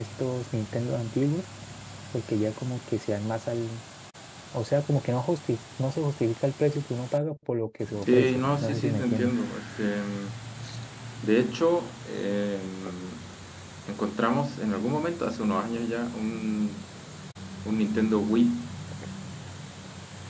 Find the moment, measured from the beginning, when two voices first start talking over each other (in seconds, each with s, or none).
8.0 s